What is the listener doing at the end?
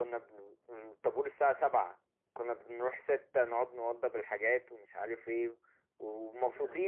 listening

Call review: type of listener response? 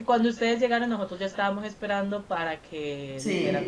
listening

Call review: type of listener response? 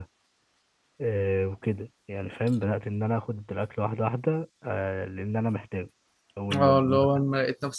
taking over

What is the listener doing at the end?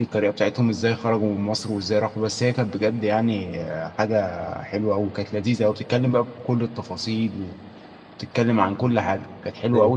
listening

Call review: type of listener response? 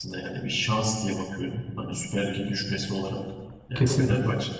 listening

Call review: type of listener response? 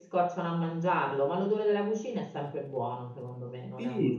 taking over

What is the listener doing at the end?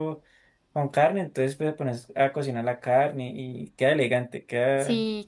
taking over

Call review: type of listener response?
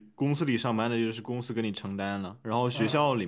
listening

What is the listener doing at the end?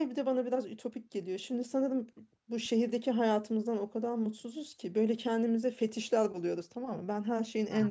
listening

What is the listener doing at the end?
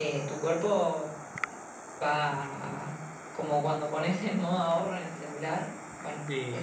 taking over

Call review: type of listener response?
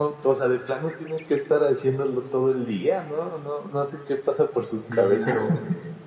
taking over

